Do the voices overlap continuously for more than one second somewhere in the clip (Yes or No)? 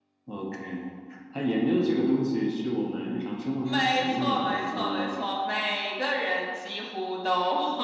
Yes